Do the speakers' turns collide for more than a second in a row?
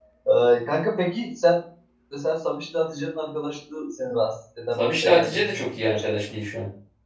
Yes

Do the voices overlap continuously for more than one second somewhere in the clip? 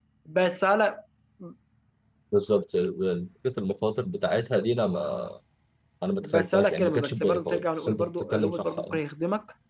Yes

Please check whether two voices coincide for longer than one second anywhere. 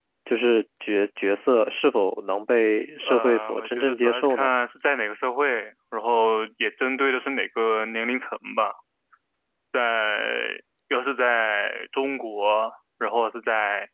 Yes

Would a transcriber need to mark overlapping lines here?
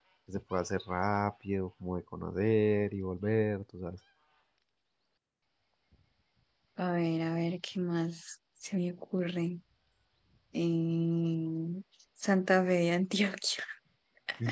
No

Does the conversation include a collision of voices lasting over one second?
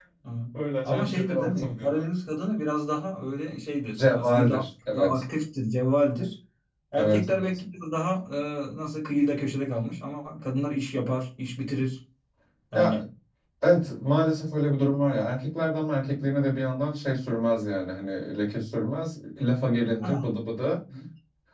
Yes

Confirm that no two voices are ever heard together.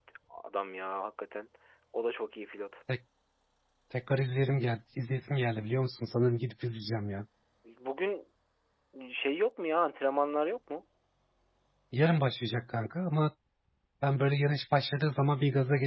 Yes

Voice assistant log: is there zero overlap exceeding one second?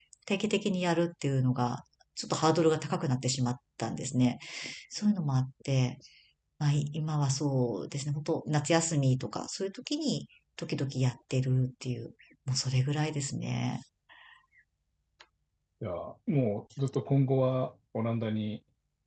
Yes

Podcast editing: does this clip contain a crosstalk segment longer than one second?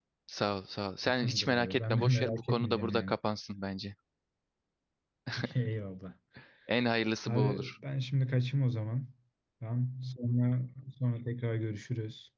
Yes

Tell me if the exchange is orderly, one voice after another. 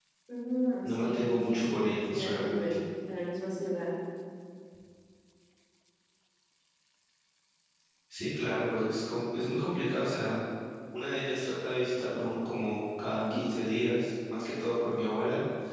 No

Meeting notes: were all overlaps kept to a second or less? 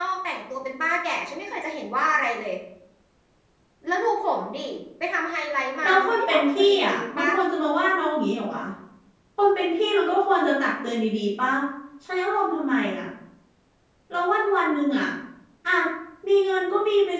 No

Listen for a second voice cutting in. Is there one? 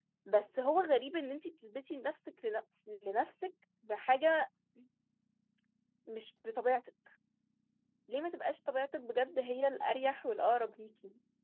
No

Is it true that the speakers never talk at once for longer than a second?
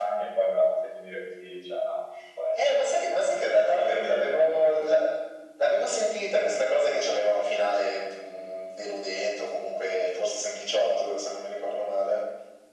No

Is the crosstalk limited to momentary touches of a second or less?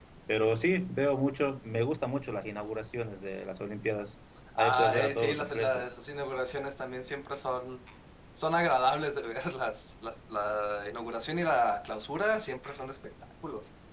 No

